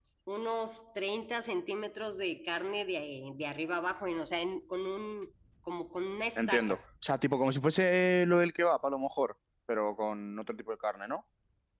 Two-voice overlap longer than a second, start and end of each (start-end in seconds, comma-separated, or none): none